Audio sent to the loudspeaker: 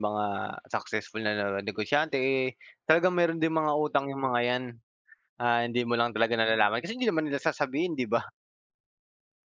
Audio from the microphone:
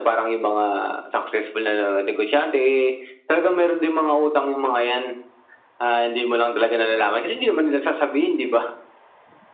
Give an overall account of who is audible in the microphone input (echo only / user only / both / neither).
echo only